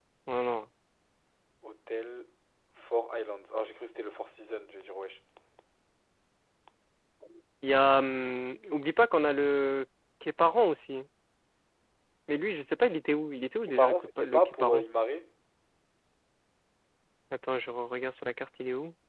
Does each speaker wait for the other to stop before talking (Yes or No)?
No